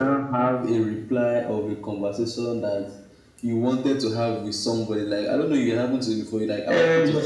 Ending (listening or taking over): taking over